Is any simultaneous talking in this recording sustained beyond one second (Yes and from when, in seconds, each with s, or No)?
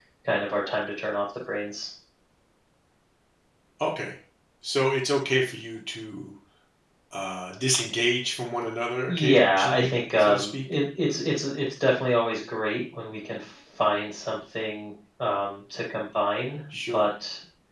Yes, from 9.1 s